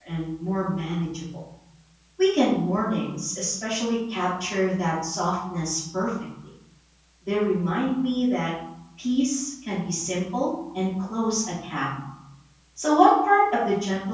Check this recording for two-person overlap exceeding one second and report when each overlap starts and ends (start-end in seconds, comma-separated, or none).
none